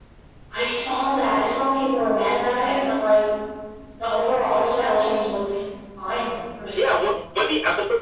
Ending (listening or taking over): taking over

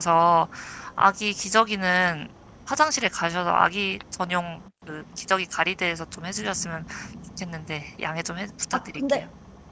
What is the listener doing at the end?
taking over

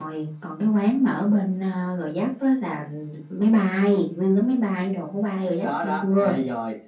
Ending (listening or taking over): taking over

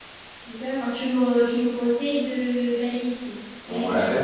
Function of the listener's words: taking over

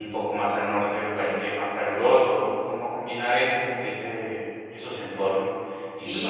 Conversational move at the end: taking over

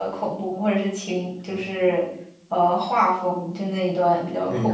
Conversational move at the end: taking over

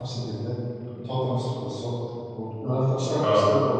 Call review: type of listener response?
listening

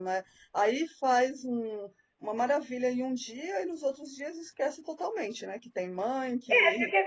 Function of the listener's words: taking over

